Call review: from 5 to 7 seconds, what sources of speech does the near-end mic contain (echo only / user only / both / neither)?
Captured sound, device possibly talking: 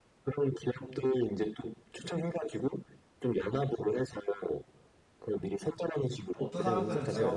both